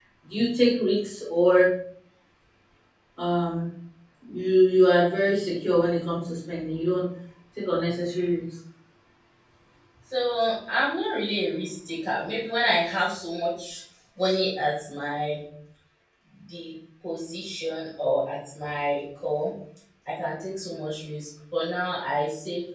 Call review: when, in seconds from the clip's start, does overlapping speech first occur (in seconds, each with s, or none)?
none